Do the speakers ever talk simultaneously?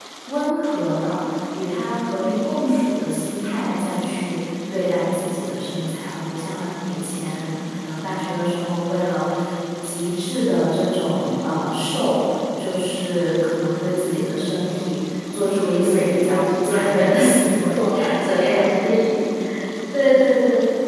Yes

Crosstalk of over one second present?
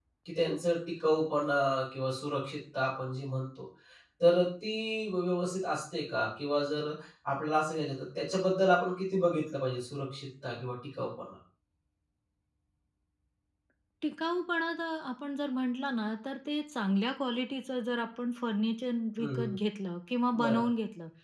No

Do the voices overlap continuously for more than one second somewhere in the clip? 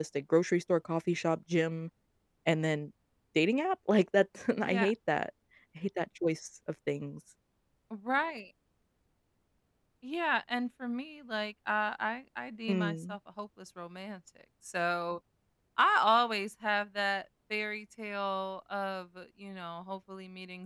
No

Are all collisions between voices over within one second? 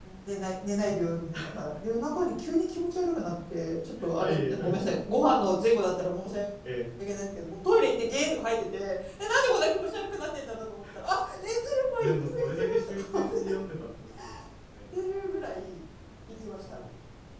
No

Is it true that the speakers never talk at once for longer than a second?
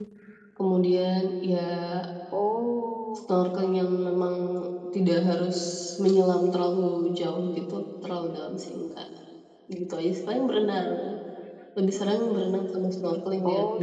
Yes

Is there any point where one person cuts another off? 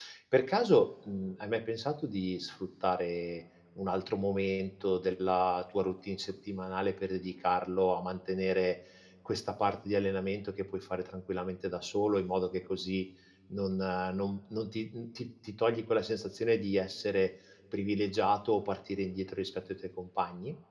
No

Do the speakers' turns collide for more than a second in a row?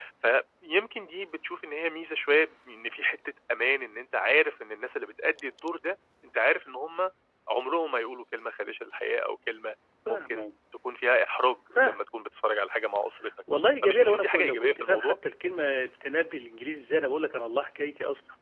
Yes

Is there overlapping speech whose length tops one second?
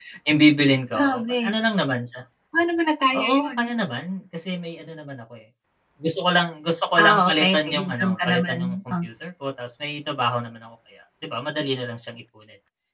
Yes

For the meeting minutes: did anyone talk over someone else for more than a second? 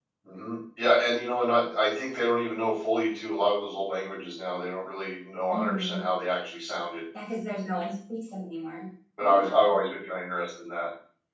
No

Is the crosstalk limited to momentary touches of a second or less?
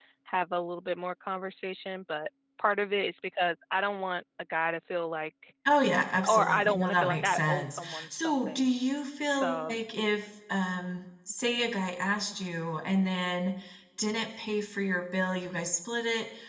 No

